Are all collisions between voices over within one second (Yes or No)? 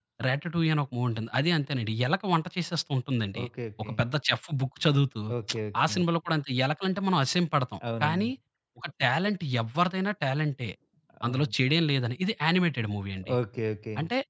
Yes